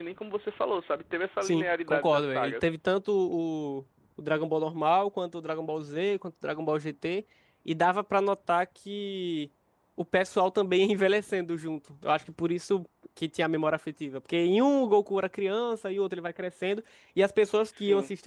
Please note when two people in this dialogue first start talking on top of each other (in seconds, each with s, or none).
1.4 s